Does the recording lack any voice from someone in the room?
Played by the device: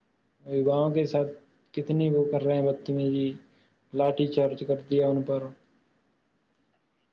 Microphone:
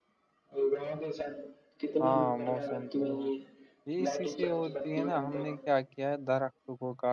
No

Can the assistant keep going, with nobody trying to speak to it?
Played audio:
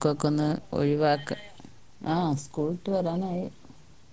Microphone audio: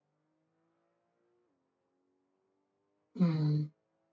No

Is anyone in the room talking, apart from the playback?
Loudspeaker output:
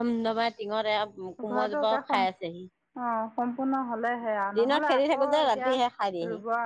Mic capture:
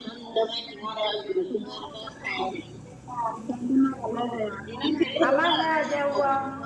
Yes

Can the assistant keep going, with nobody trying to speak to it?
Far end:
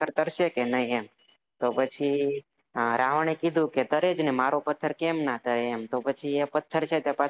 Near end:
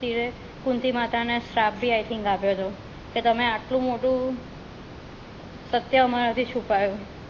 No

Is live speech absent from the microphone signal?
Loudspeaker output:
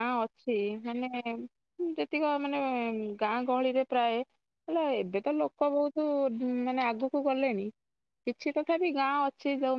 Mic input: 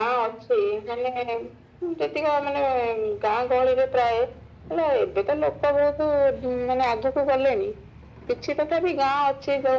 Yes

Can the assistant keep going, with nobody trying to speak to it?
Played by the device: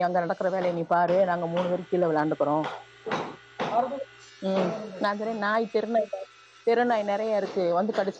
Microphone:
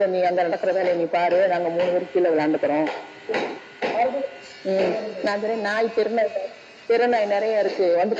Yes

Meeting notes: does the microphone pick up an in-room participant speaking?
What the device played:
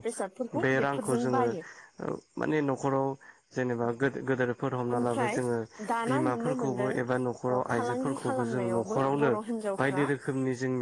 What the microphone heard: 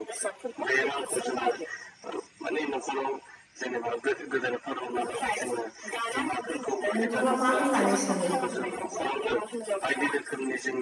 Yes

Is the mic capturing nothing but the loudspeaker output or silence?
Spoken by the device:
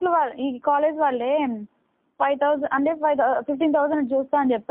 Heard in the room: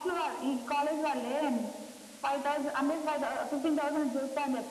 Yes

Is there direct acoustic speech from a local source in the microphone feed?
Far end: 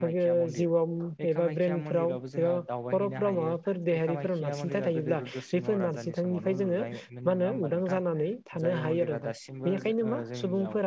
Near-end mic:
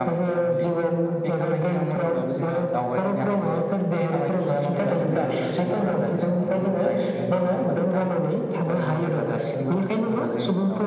No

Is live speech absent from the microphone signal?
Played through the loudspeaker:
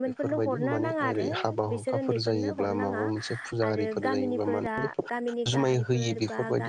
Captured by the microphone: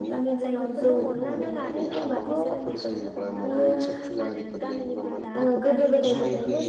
No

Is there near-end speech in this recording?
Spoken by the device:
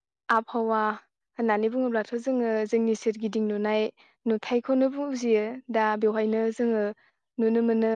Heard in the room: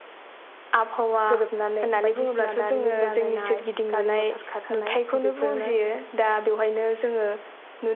Yes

